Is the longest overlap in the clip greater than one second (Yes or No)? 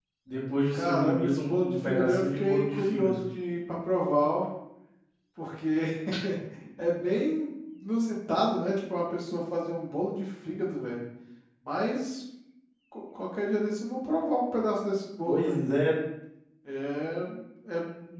Yes